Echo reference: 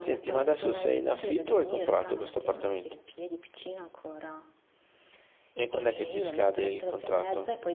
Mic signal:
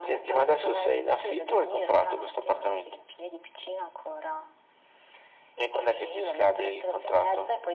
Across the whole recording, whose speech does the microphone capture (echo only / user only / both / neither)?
echo only